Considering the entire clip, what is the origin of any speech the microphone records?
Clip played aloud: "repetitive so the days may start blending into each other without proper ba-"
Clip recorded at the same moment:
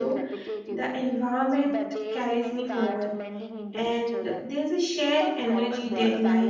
both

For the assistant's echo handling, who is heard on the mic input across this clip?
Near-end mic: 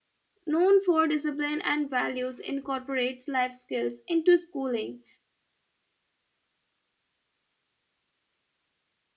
user only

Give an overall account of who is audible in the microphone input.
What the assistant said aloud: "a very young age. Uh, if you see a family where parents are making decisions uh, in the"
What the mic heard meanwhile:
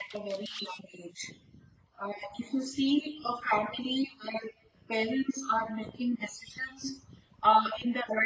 echo only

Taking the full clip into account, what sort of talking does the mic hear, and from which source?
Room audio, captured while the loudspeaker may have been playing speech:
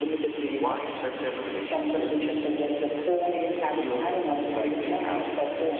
echo only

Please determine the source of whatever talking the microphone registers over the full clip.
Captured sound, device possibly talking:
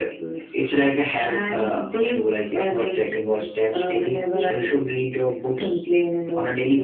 both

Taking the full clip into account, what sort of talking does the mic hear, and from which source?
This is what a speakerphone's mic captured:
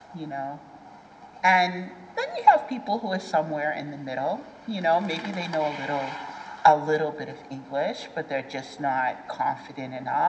echo only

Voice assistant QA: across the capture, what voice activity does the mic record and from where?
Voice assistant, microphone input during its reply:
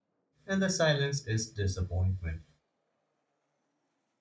user only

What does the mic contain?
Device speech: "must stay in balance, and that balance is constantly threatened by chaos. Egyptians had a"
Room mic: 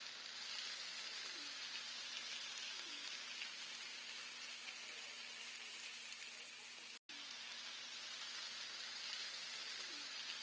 neither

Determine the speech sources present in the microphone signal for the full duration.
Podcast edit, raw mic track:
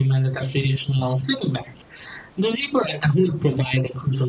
echo only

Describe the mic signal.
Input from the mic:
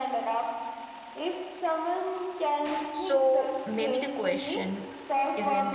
both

